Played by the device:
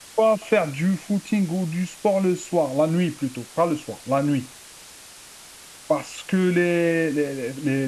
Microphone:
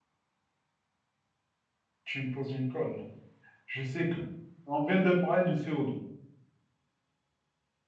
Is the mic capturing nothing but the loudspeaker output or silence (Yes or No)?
No